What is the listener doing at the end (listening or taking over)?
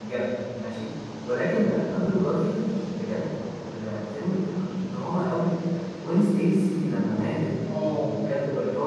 listening